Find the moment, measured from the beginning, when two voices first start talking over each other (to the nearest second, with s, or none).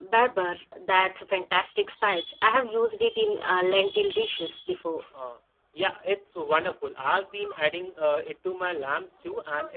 none